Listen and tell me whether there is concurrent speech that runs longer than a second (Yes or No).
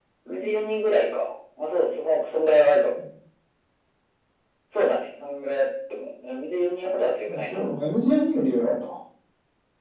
No